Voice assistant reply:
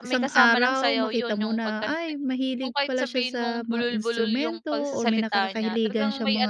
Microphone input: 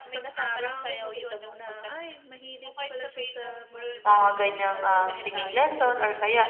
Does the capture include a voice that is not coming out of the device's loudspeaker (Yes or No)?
Yes